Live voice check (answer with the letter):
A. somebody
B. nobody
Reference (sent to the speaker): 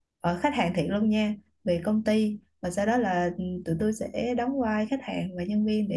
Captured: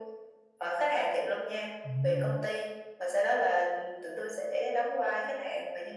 A